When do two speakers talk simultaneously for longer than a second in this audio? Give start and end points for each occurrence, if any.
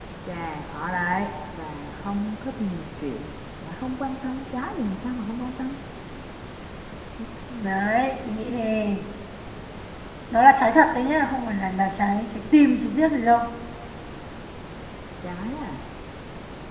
none

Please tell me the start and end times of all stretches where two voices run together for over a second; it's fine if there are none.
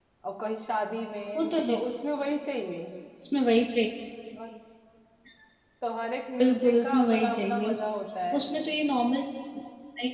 6.4-7.8

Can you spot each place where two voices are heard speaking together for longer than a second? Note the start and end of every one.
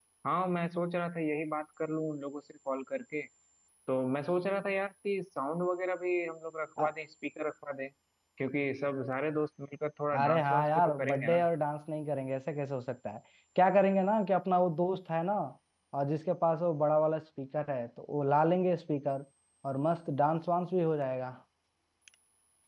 10.2-11.4

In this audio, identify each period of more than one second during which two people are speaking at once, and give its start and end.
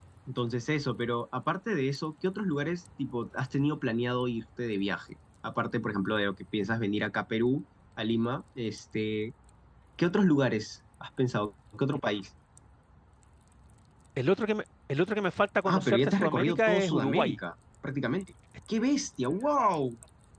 15.6-17.4

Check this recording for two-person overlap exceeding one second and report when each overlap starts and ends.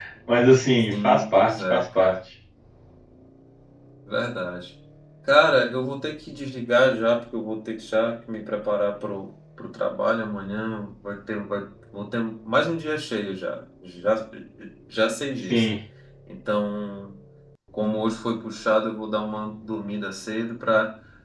0.9-2.1

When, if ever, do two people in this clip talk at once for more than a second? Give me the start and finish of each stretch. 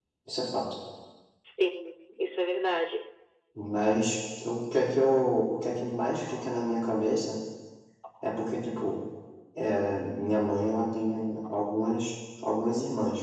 none

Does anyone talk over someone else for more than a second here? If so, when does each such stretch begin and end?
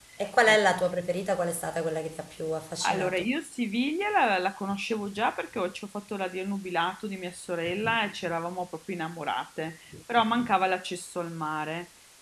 none

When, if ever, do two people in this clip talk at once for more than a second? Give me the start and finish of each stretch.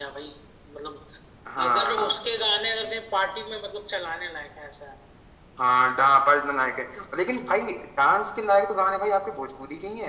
none

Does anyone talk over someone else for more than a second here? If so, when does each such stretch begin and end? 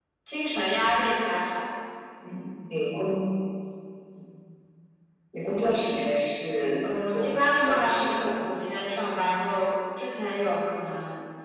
6.8-8.4

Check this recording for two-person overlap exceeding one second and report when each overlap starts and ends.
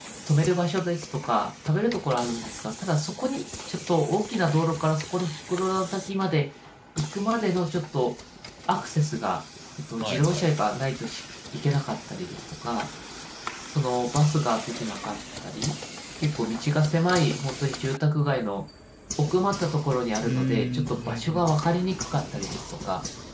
20.2-21.5

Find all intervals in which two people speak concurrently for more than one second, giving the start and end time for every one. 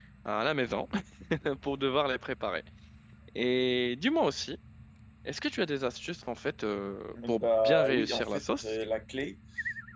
7.2-8.8

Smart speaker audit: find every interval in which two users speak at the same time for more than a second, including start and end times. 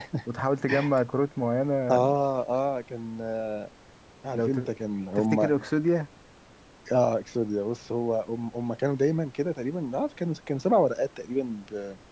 none

